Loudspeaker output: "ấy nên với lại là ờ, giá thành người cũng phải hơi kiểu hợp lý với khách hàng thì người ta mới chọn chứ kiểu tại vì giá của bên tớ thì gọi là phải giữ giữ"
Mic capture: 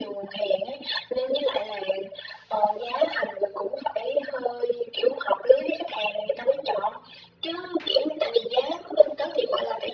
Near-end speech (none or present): none